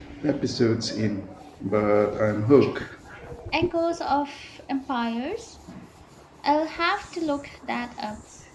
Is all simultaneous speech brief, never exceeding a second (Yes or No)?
Yes